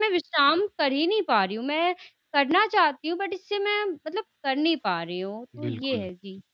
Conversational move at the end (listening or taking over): taking over